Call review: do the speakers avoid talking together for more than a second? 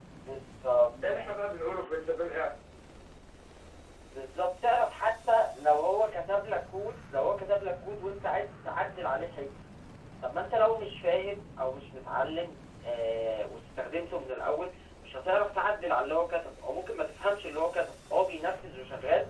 Yes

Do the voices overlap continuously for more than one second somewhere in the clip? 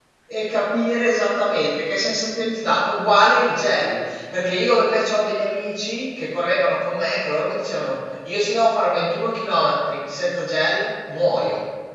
No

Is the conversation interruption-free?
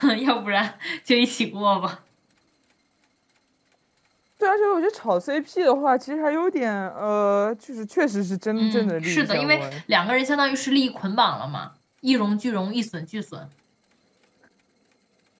No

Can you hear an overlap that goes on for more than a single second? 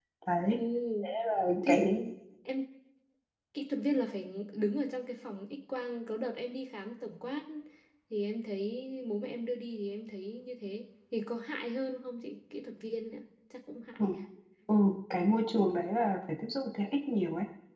No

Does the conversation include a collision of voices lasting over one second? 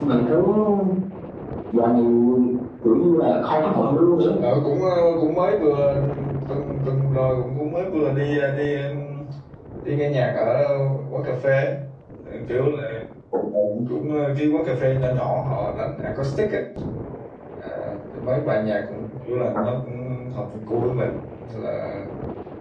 No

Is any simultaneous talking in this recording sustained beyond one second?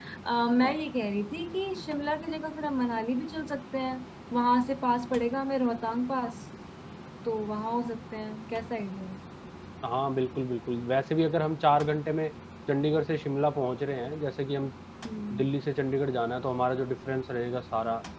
No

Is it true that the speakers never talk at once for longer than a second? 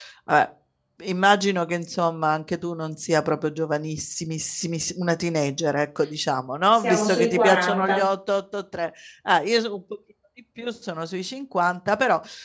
No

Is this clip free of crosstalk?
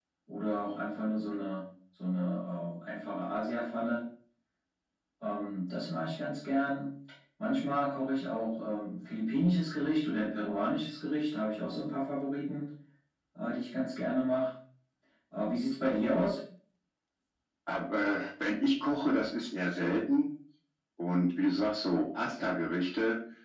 Yes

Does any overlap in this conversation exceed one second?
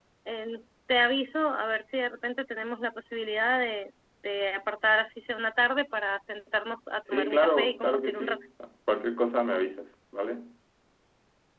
Yes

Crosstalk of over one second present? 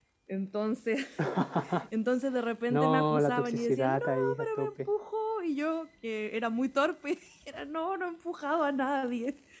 Yes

